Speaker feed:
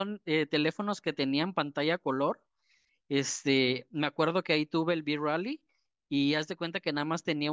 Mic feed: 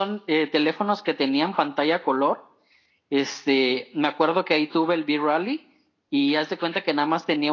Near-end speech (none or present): none